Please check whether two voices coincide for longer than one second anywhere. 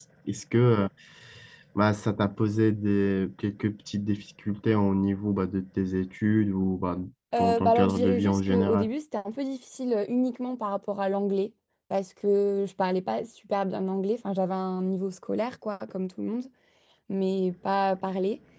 Yes, from 7.4 s

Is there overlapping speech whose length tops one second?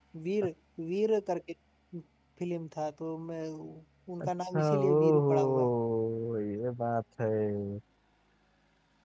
Yes, from 4.2 s

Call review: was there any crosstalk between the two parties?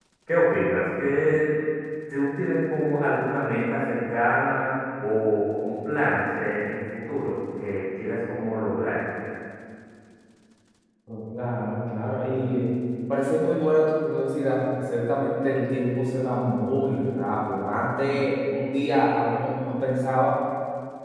No

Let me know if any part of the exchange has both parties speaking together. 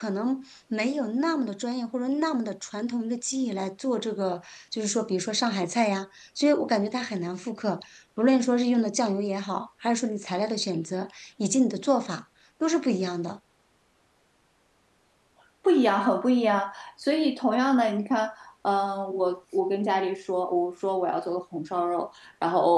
No

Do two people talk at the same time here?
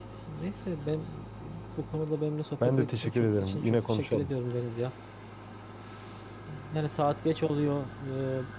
Yes, from 2.6 s

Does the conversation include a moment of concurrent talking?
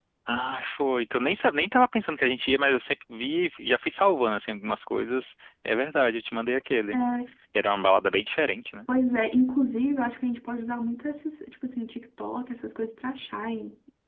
No

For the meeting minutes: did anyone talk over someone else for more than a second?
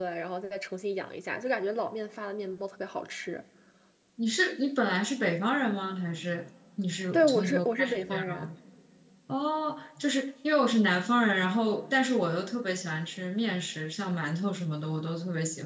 Yes, from 7.1 s

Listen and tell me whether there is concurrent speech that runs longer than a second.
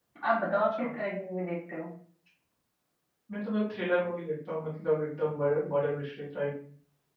No

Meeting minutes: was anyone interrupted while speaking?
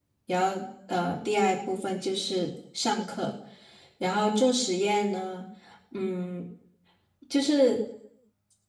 No

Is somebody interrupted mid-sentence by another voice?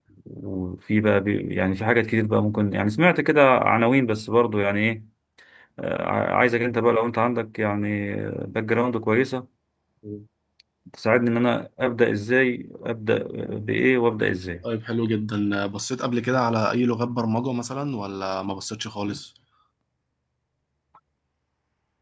No

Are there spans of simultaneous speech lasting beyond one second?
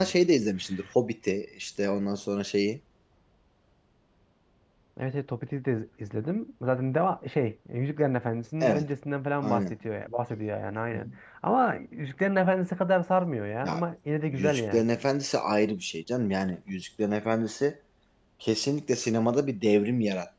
No

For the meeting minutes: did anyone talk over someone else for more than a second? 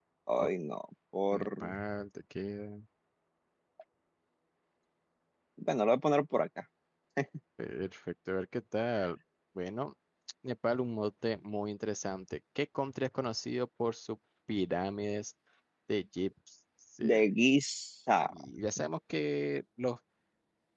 No

